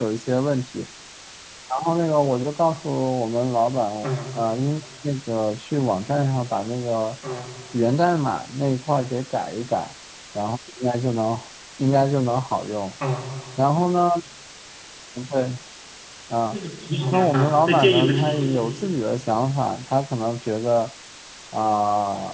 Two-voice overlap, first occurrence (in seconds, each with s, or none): 17.1 s